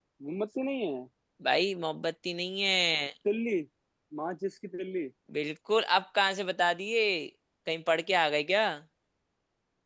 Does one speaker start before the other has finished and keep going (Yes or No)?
No